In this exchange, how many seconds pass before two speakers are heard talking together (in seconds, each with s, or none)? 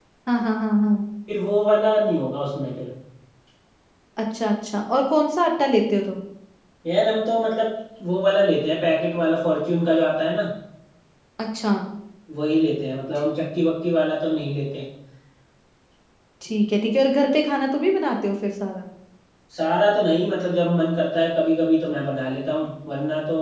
none